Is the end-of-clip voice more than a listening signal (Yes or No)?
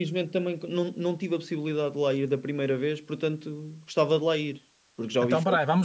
Yes